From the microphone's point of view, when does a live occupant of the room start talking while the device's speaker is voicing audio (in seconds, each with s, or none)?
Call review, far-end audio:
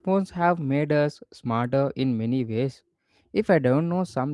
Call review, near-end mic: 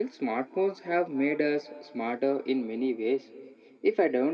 none